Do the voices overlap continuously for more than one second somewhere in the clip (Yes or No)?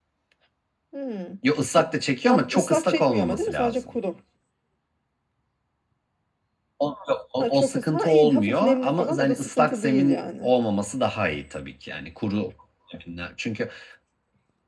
Yes